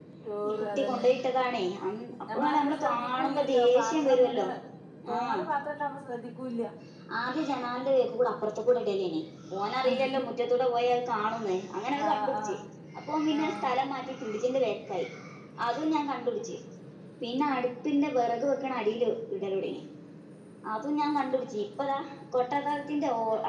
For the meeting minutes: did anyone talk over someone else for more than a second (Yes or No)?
Yes